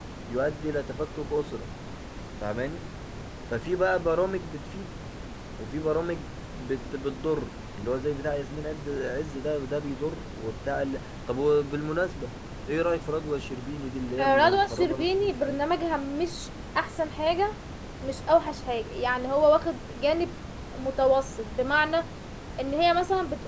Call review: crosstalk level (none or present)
present